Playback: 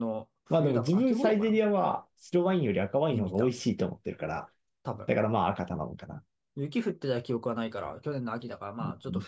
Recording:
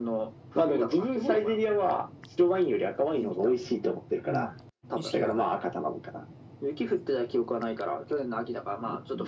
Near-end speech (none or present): present